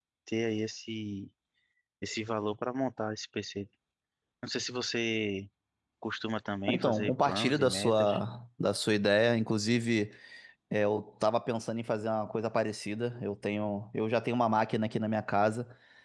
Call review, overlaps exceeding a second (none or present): present